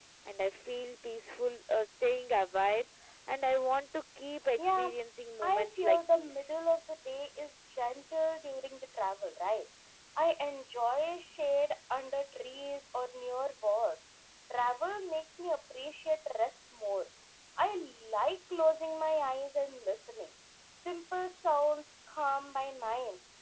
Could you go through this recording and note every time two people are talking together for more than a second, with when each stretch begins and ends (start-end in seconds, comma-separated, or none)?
5.4-6.6